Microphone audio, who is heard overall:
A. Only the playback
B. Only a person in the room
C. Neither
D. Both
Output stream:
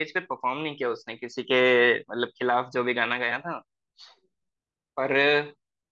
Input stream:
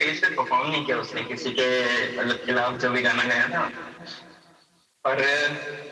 A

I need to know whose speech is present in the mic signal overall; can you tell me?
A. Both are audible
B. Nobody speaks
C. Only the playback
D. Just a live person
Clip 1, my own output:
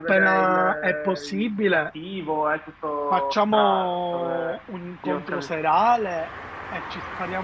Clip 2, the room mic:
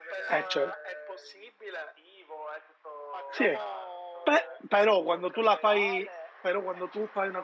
A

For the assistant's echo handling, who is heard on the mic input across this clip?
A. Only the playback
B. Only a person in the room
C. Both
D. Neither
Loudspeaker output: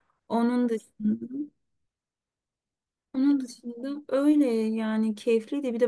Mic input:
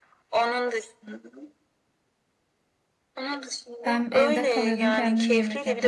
C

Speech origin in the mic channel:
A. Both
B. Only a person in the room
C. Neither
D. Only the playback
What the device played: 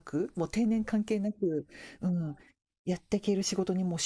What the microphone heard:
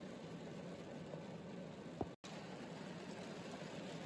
C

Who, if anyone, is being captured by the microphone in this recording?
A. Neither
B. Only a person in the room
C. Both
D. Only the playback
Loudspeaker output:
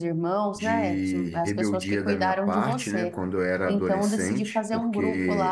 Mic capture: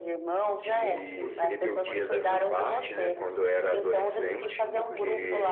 C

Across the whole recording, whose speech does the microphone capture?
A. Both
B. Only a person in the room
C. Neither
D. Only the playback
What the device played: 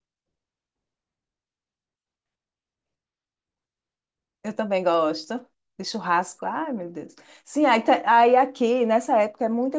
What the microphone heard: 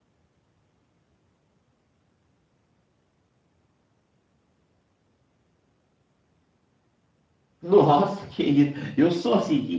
B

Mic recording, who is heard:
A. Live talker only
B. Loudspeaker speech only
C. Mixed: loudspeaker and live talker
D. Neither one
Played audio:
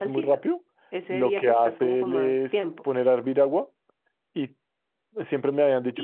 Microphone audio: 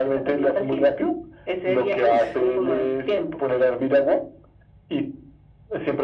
C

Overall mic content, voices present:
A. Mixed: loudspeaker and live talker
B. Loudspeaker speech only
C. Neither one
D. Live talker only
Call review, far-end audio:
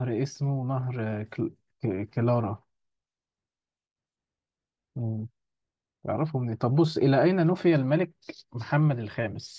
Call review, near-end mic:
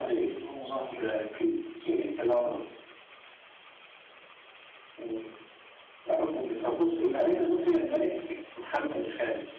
B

